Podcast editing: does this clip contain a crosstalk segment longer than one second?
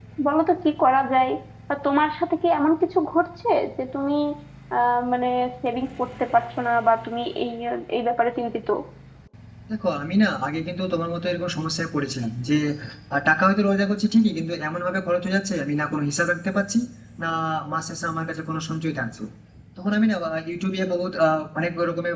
No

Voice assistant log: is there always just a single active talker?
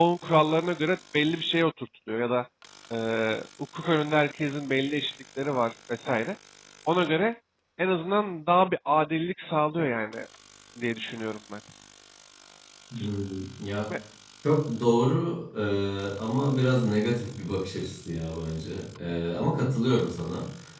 Yes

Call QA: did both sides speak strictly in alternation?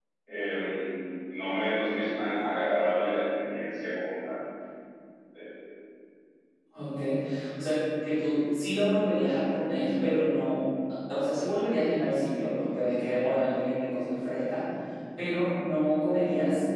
Yes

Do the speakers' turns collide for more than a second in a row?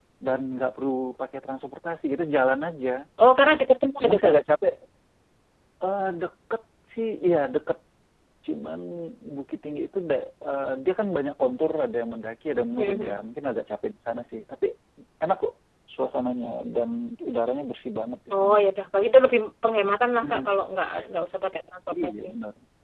No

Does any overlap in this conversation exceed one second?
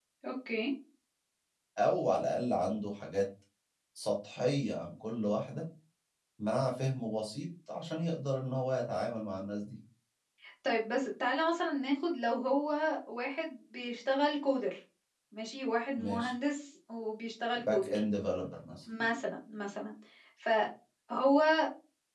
No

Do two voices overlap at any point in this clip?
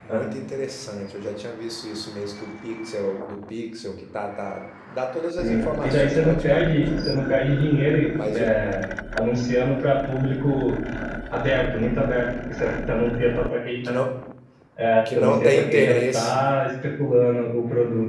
Yes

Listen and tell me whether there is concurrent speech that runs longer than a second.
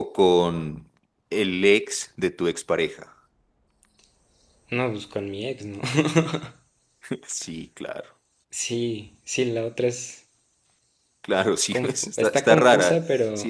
Yes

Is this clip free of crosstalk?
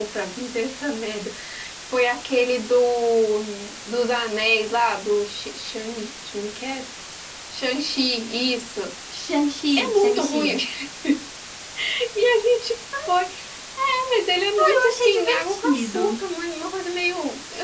No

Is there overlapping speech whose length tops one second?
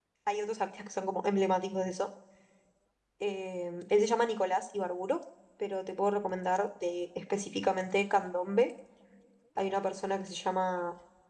No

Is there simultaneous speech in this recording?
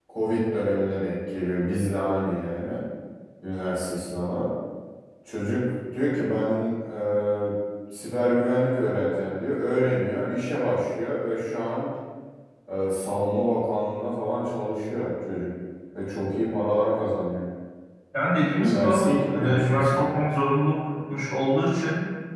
Yes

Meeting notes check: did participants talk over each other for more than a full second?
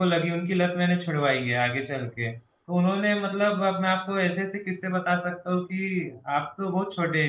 No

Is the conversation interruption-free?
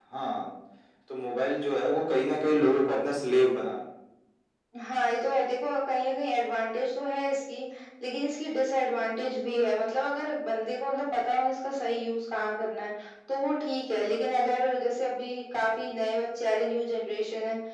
Yes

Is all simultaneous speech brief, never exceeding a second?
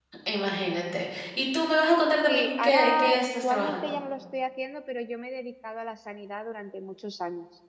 No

